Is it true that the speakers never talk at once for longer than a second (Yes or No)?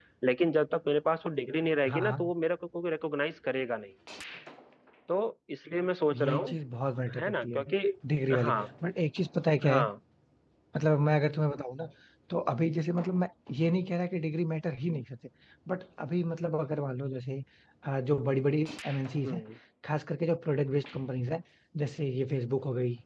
Yes